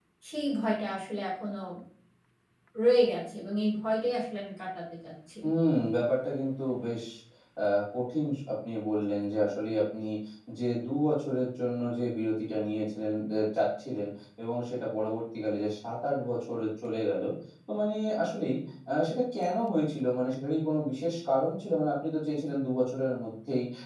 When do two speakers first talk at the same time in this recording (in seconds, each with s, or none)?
none